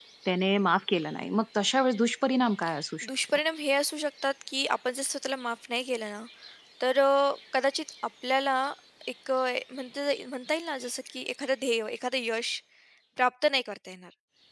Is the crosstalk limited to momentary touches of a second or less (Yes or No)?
Yes